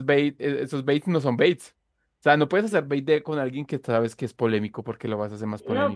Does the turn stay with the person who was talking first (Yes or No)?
No